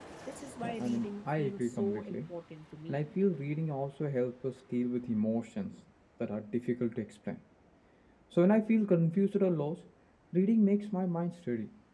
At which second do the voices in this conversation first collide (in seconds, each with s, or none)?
0.6 s